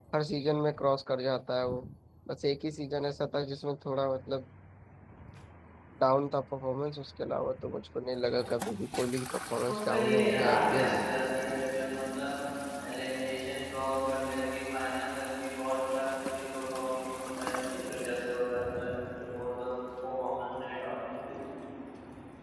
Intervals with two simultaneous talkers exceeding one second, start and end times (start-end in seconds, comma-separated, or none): 9.7-11.0